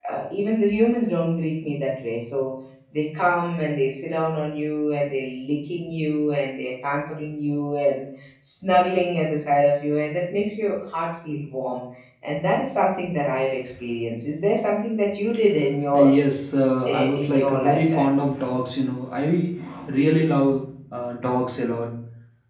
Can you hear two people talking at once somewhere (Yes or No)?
Yes